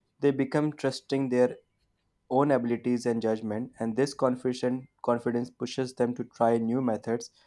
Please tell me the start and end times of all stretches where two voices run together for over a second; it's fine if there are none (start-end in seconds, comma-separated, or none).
none